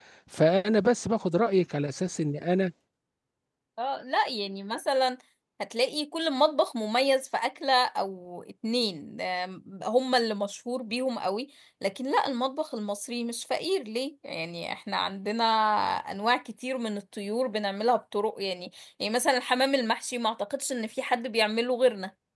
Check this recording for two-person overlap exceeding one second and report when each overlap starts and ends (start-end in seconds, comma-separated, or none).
none